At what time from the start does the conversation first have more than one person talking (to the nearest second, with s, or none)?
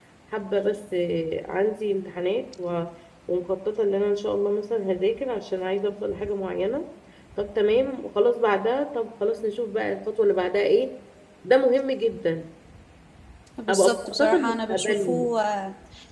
14 s